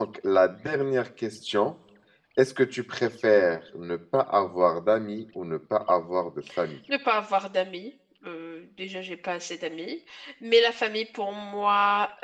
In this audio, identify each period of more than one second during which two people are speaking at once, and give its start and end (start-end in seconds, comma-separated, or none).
none